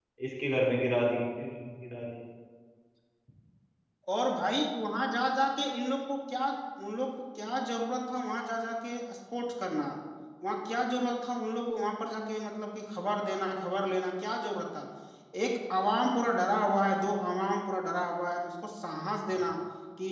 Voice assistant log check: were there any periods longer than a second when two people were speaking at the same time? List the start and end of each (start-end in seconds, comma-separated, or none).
none